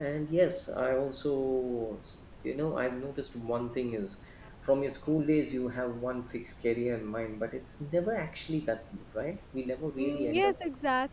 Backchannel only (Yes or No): No